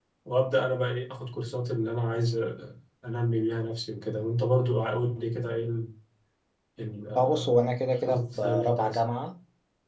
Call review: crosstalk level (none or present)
present